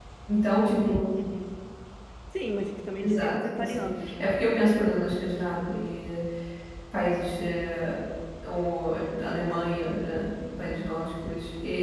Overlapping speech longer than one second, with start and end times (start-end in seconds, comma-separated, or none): 3.0-4.3